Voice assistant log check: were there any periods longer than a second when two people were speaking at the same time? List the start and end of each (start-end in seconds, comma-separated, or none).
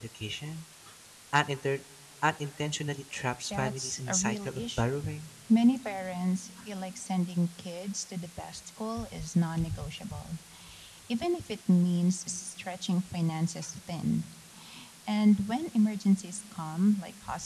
3.5-5.0